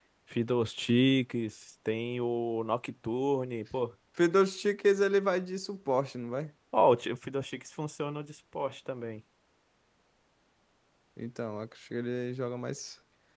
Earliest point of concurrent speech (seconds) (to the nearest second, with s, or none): none